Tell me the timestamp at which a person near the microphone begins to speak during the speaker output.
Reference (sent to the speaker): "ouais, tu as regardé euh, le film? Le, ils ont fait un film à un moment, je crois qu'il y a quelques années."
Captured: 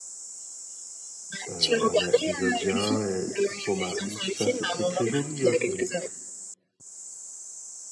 1 s

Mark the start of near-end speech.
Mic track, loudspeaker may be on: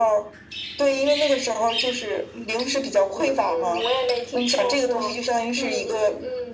none

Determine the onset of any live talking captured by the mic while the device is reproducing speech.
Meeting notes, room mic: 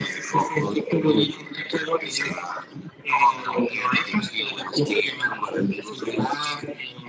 none

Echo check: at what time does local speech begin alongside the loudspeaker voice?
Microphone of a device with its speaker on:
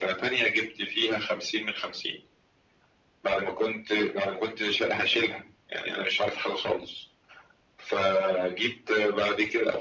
none

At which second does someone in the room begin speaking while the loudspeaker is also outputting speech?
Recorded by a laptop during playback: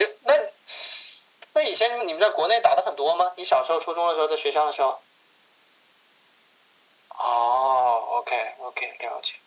none

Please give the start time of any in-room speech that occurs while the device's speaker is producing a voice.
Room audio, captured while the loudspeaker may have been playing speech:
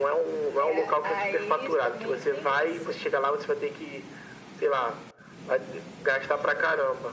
1 s

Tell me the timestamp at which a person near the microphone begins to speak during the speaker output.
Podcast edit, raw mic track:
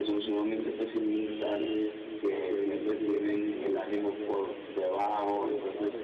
1 s

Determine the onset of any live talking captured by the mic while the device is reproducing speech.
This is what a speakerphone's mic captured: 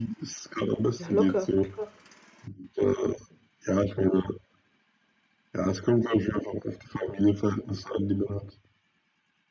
1 s

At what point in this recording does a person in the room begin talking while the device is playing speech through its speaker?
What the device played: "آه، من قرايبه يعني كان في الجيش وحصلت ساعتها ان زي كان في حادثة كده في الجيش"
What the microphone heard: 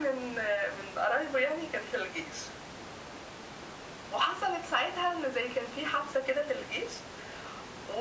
none

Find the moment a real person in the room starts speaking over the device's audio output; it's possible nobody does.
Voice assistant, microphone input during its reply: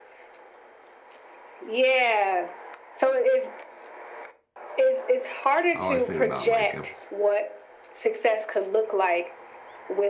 6 s

